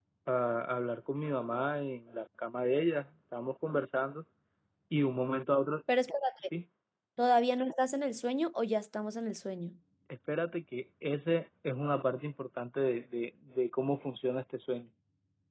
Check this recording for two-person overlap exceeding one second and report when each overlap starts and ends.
none

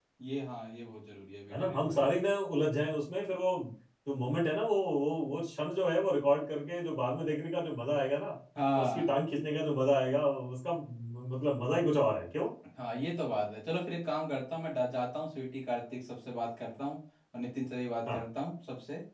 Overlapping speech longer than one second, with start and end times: none

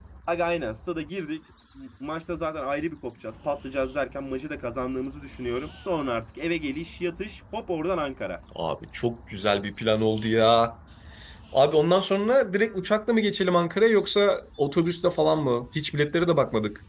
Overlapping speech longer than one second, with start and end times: none

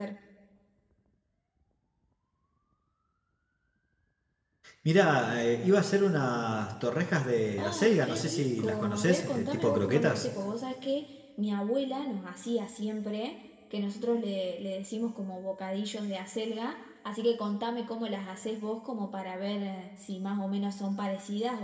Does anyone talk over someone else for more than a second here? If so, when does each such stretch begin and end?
7.6-10.2

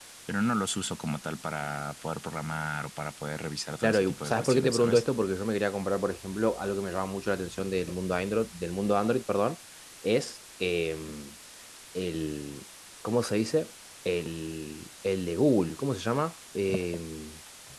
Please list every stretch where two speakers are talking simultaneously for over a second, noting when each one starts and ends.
3.8-5.0

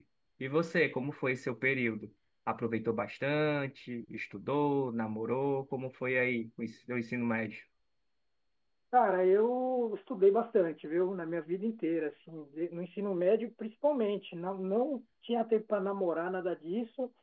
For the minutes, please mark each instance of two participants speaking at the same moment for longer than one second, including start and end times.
none

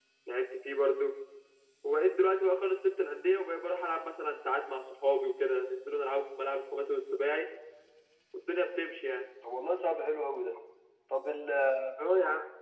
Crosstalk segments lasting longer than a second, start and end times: none

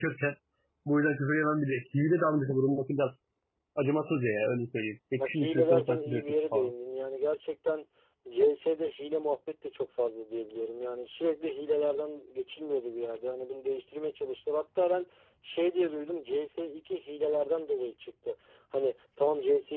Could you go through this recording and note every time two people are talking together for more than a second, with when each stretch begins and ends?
5.1-6.7

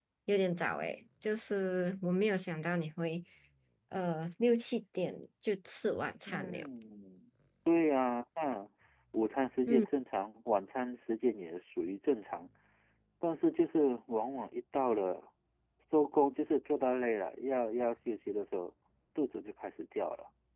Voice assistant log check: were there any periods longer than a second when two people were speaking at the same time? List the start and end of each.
none

